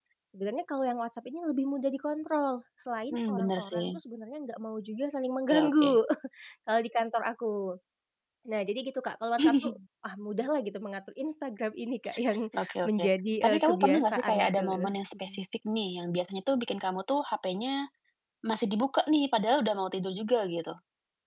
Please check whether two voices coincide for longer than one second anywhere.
Yes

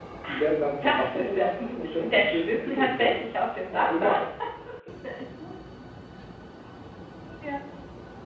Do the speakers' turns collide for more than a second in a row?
Yes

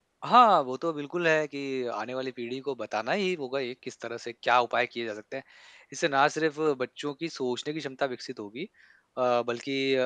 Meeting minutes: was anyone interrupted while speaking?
No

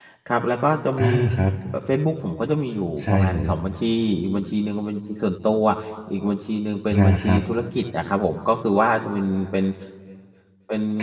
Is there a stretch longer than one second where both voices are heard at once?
No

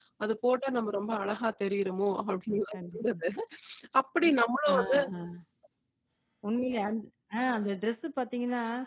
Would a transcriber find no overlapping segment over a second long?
Yes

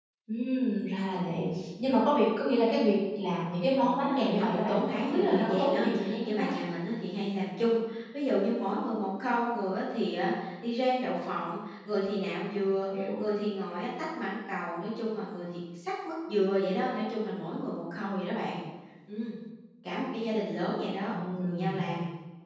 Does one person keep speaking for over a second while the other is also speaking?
Yes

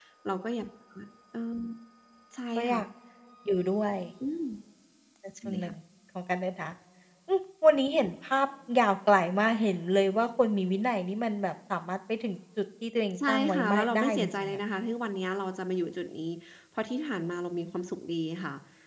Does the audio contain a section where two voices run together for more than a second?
Yes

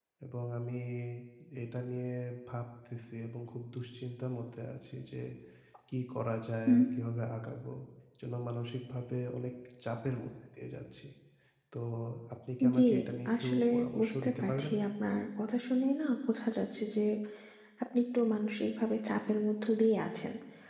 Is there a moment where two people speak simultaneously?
Yes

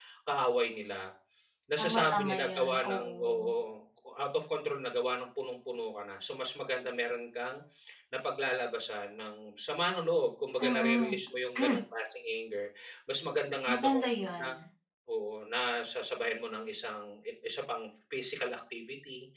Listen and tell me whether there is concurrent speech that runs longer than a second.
Yes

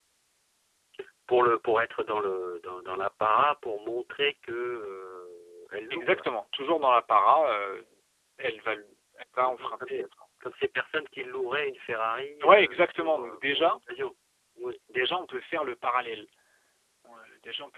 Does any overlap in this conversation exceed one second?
Yes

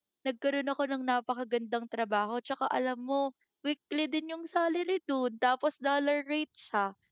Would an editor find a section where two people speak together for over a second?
No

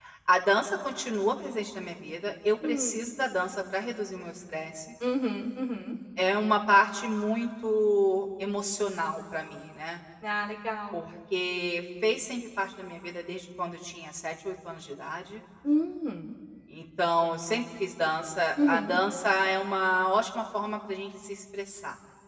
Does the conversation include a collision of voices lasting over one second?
No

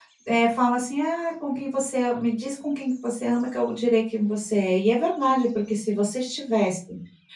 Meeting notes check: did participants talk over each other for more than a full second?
No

